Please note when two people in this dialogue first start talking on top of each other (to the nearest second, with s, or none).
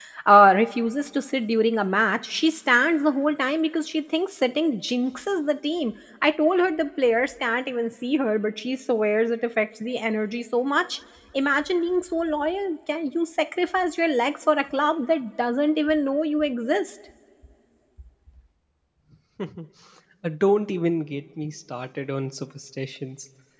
none